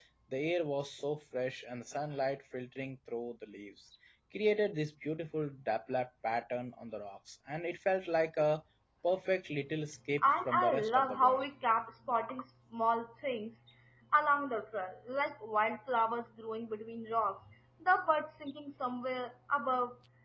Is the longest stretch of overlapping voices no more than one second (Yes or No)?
No